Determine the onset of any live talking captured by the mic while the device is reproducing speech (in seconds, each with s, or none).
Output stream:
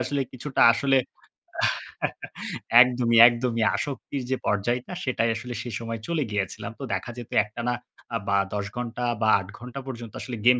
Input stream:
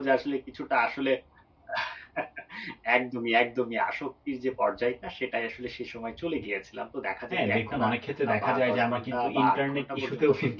7.3 s